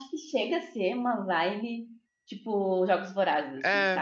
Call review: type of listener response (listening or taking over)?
taking over